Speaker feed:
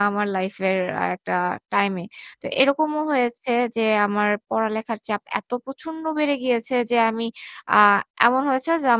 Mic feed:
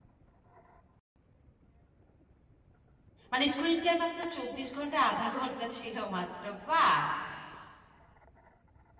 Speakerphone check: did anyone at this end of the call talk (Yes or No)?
Yes